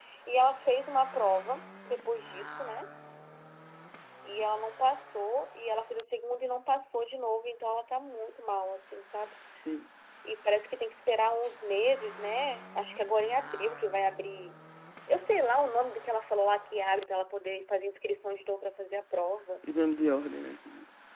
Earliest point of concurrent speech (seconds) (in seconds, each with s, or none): none